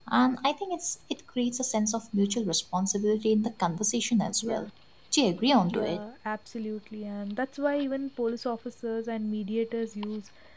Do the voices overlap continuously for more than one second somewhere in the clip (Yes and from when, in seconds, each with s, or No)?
No